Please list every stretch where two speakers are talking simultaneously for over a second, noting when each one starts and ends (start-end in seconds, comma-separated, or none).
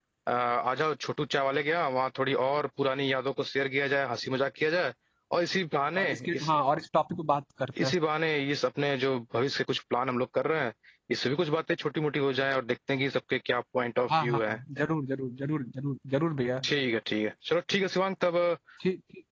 none